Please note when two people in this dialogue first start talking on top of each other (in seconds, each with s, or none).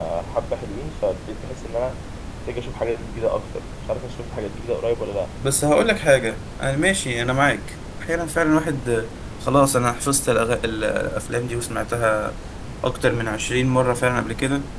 none